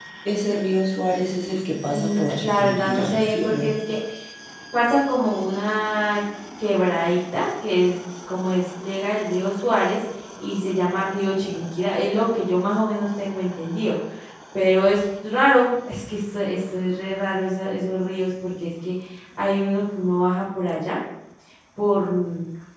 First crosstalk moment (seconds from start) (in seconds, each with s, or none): 1.9 s